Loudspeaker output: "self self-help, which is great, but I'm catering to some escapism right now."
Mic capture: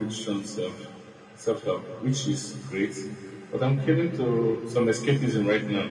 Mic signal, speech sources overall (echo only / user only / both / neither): echo only